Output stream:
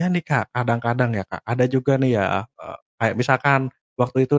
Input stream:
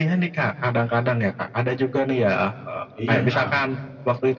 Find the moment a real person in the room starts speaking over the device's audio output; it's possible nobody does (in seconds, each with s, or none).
3.0 s